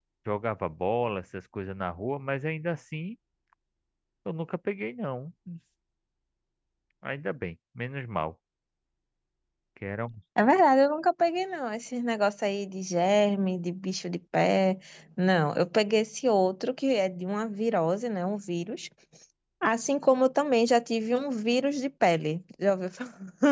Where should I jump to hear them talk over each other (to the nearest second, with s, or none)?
none